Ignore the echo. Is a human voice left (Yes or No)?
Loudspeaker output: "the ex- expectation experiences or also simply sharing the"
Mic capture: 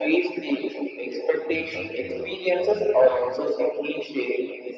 Yes